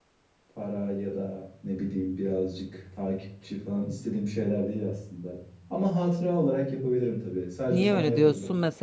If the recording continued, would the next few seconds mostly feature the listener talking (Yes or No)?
Yes